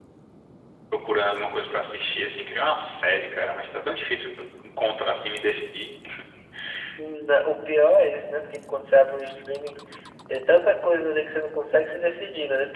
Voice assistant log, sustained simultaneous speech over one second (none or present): none